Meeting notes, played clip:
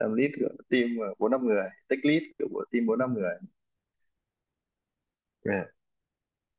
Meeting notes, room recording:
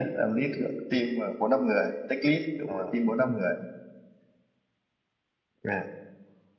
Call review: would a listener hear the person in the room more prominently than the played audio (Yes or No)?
No